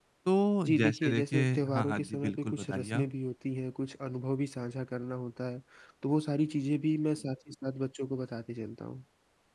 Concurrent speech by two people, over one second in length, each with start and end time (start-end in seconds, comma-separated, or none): 0.7-3.0